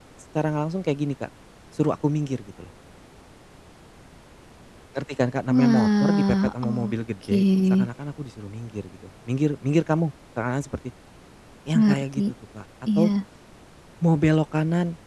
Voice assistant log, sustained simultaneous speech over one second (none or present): present